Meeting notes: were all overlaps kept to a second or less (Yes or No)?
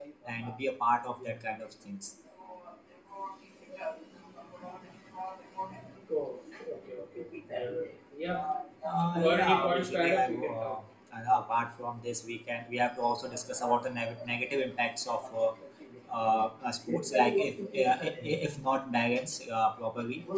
No